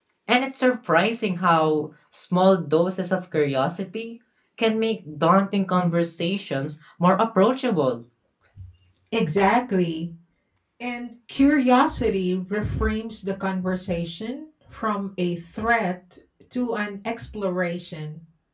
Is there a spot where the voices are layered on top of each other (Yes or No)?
No